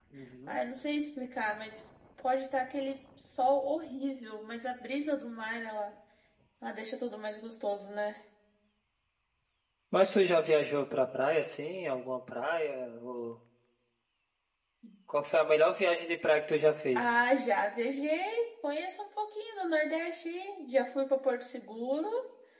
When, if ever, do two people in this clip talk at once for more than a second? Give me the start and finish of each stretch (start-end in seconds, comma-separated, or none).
none